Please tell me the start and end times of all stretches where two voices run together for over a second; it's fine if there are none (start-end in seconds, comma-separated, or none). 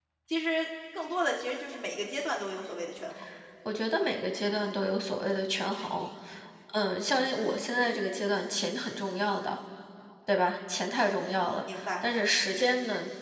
none